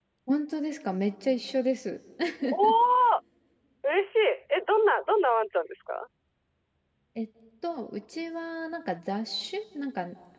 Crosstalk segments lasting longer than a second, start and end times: none

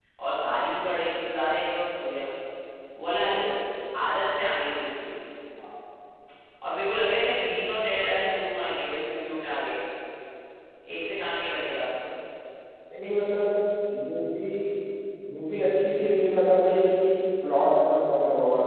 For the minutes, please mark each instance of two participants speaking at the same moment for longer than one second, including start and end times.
none

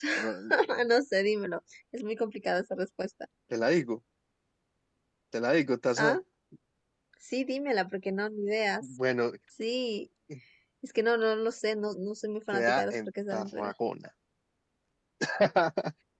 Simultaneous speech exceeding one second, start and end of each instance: 12.5-13.7

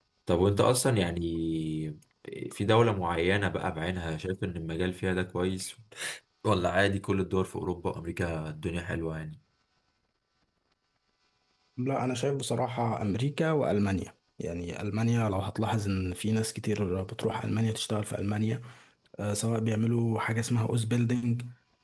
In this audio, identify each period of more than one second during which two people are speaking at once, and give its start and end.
none

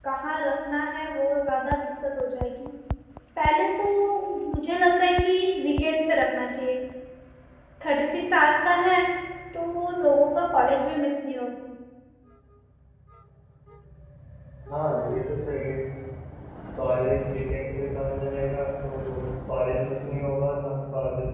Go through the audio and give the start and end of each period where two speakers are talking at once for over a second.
none

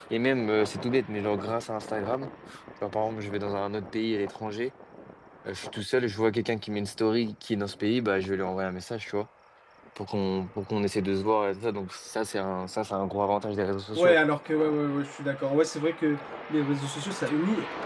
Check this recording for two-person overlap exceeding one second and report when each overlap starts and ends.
none

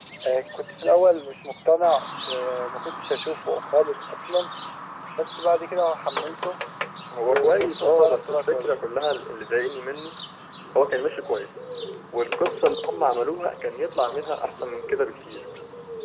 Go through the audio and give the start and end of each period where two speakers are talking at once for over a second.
7.3-8.8

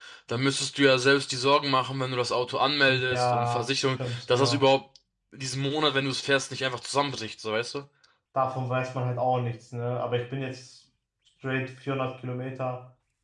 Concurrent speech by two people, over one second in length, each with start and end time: 2.9-4.7

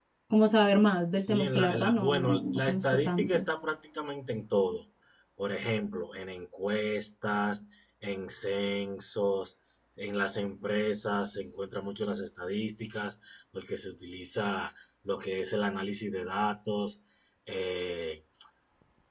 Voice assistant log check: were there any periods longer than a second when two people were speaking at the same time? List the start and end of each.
1.3-3.5

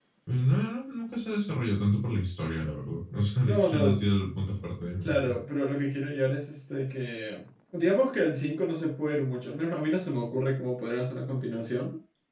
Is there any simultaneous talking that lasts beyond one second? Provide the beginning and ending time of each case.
none

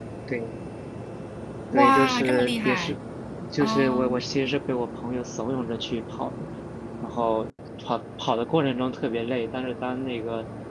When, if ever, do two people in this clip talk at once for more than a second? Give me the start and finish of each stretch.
1.7-2.9

